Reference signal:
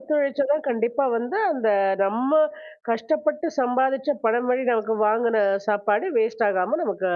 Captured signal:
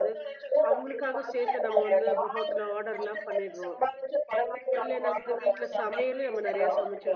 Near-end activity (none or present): present